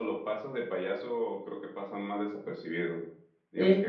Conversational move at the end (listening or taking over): listening